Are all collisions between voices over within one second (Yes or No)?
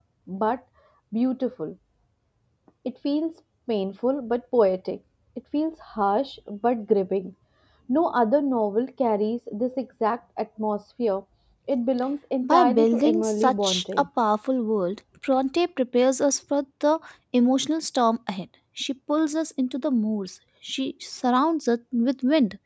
No